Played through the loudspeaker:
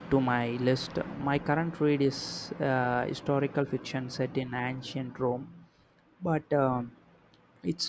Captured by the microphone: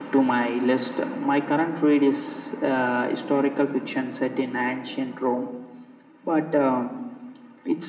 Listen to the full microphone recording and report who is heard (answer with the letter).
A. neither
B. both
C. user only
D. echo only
D